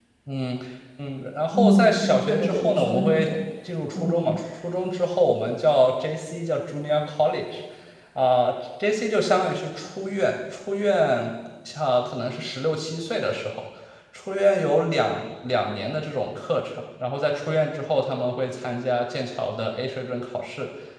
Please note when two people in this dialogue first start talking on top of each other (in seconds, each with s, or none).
1.5 s